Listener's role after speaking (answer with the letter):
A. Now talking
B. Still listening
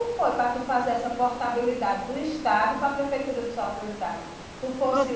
A